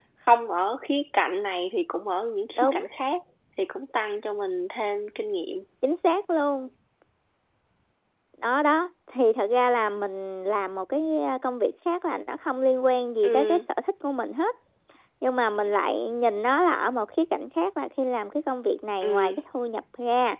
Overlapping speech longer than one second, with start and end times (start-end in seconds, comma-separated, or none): none